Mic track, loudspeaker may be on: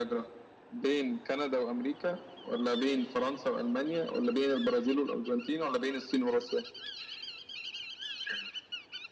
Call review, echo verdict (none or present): present